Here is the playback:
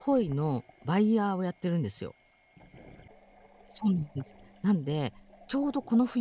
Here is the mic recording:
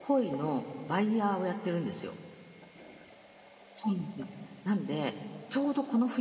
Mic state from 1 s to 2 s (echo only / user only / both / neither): echo only